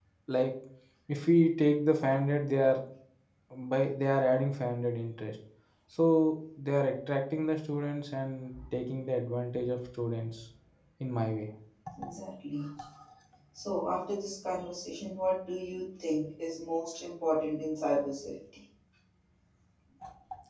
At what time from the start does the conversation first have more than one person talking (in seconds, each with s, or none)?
none